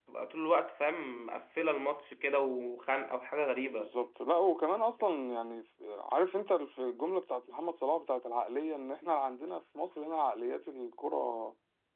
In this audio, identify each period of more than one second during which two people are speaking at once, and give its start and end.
none

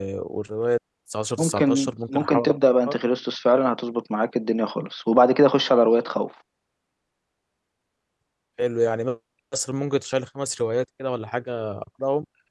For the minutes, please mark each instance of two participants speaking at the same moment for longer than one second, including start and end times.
1.4-2.9

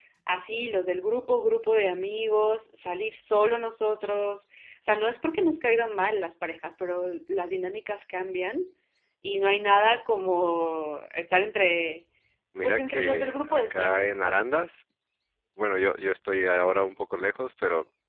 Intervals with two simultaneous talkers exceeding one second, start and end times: 12.6-14.4

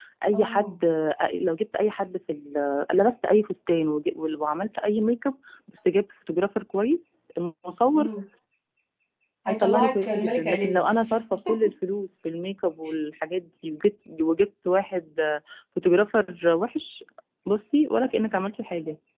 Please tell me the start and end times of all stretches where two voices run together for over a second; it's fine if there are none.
9.5-11.1

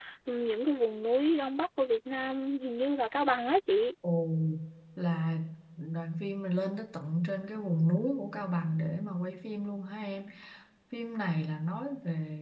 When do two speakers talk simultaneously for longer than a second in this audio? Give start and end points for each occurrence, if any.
none

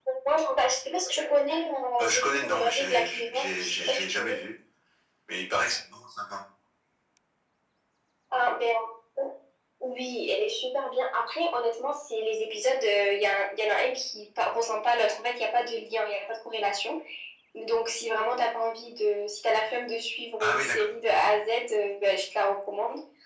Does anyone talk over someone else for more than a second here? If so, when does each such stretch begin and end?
2.0-4.4

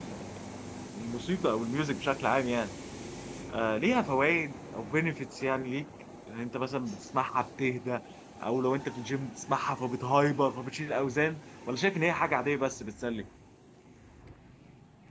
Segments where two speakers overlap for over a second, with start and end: none

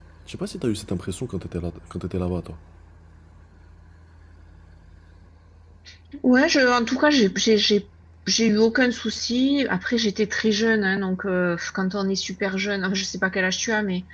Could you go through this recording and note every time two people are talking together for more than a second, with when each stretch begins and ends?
none

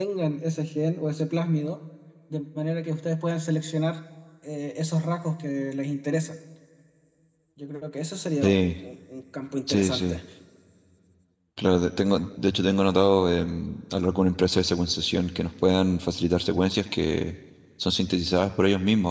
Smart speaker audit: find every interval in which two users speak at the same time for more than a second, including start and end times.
none

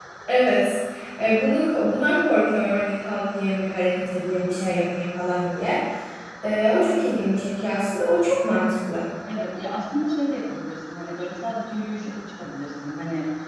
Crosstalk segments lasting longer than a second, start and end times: none

